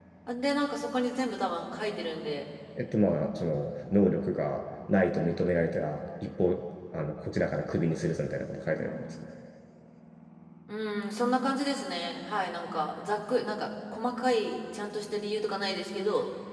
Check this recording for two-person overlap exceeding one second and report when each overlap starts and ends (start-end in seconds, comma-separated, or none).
none